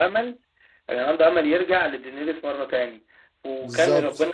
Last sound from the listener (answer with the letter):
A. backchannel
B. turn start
A